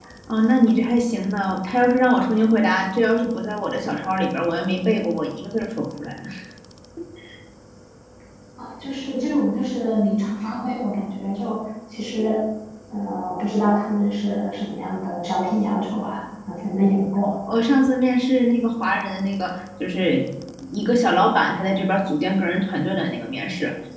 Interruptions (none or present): none